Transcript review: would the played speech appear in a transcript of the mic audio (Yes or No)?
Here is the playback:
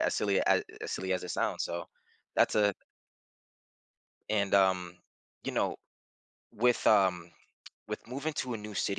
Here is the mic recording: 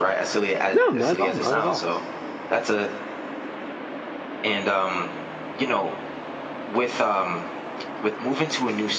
Yes